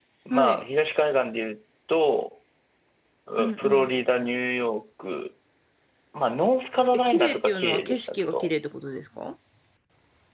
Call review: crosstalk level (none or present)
present